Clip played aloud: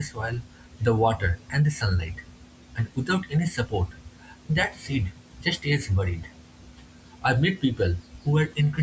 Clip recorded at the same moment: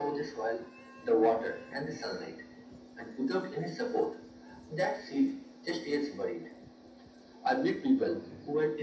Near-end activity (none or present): present